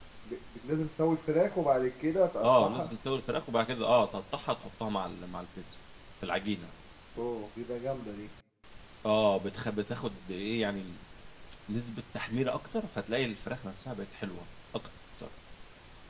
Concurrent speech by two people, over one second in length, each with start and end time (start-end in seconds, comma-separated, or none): none